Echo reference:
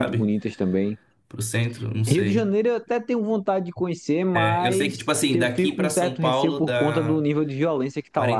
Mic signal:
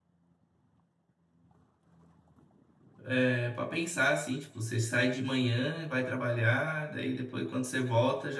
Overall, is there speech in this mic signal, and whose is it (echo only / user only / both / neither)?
user only